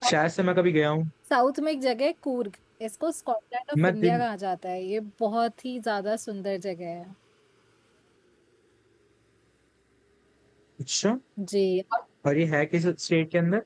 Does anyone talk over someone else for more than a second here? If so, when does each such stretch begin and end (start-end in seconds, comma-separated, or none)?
none